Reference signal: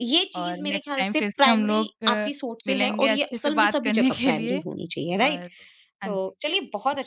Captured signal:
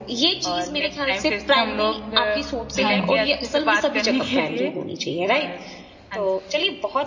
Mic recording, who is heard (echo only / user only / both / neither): both